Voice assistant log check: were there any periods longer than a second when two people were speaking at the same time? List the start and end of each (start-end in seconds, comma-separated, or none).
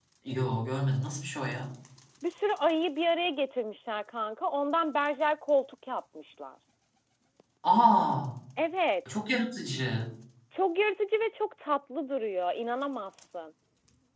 none